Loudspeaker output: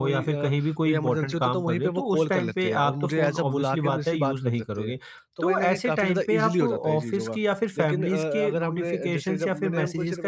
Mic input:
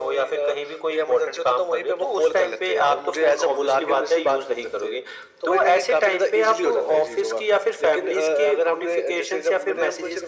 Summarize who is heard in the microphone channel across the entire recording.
echo only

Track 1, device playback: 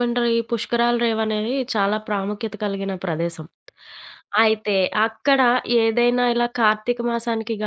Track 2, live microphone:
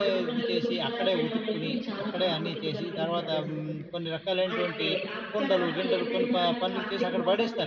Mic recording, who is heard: both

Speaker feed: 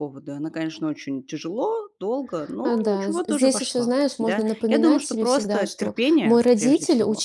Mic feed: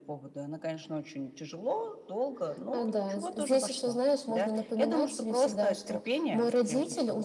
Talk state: echo only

